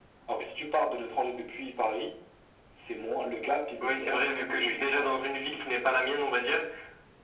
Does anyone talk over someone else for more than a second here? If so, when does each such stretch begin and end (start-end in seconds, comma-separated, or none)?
3.8-5.1